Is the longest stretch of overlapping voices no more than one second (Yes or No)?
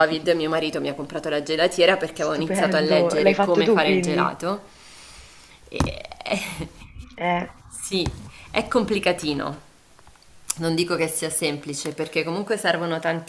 No